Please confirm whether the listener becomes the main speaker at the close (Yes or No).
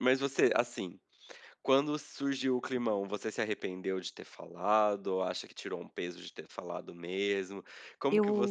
No